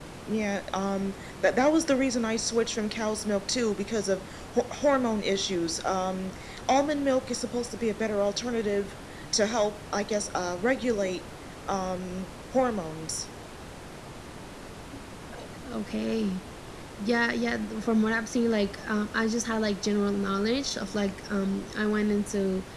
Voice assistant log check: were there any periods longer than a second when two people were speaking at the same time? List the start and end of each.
none

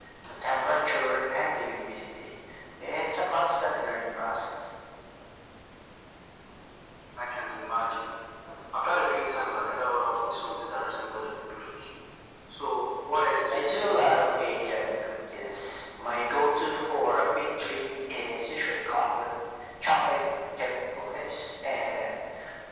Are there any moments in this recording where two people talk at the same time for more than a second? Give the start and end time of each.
none

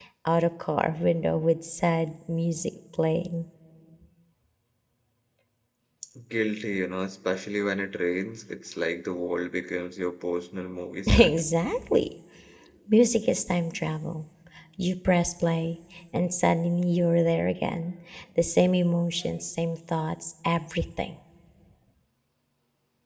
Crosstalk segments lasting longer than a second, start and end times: none

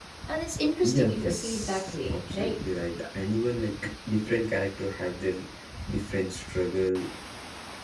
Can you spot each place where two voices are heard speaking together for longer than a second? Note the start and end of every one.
0.8-2.6

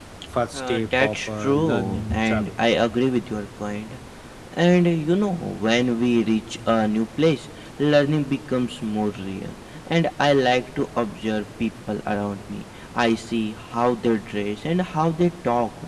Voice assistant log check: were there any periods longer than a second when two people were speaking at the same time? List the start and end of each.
0.5-2.5

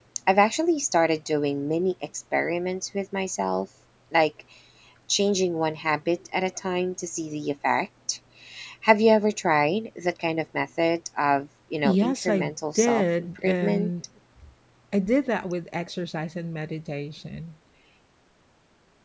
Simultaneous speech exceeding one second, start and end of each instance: 11.8-13.9

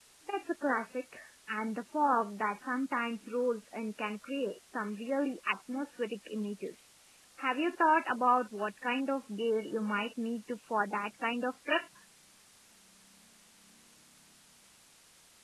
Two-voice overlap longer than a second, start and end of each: none

